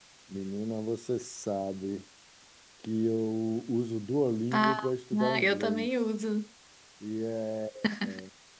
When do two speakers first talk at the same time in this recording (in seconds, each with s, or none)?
4.5 s